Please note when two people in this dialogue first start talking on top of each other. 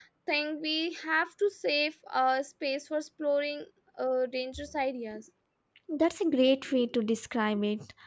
none

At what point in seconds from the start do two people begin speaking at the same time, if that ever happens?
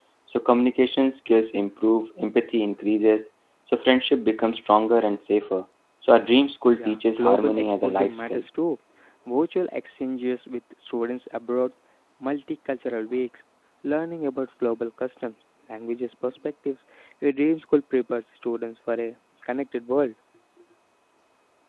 7 s

